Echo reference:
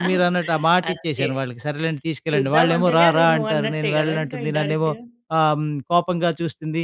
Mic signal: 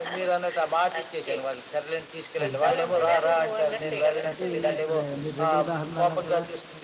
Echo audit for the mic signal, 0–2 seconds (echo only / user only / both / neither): echo only